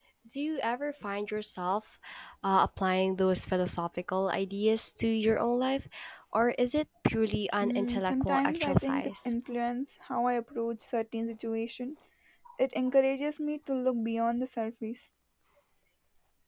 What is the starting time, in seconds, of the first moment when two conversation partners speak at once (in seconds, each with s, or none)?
7.6 s